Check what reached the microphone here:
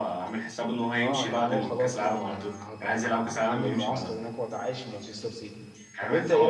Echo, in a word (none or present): present